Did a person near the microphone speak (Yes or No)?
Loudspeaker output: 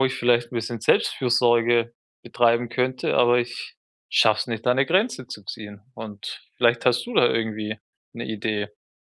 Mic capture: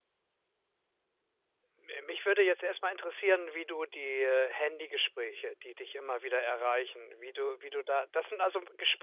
Yes